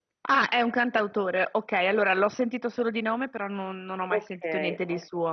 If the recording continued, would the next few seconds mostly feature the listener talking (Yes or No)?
Yes